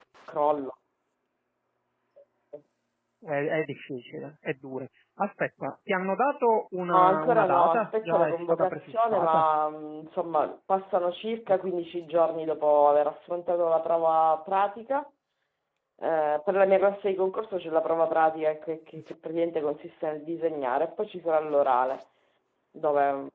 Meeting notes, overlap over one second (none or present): present